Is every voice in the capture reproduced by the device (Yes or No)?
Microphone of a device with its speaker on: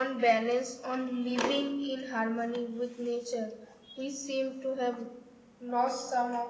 Yes